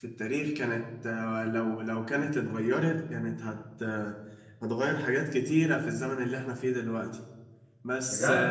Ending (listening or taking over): taking over